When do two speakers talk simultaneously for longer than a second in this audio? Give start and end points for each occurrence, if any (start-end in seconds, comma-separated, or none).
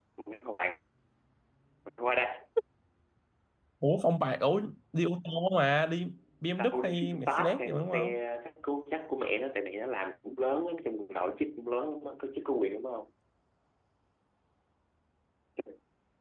6.6-8.2